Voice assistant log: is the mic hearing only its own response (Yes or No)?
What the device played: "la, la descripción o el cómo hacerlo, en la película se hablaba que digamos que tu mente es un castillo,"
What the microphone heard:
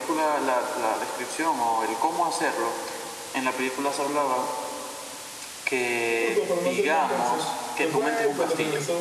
No